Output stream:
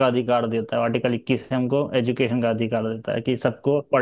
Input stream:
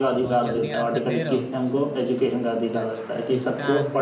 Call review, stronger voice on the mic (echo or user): echo